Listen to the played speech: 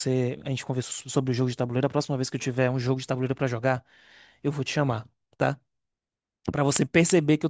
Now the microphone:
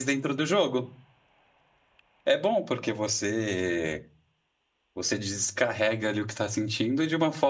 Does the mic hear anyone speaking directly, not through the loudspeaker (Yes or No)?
Yes